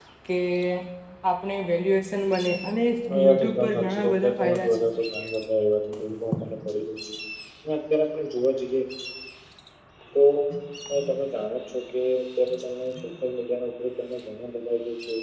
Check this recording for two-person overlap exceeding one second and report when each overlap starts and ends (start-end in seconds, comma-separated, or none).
3.2-4.8